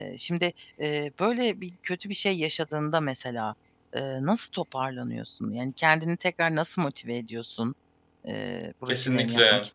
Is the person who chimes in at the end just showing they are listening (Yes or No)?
No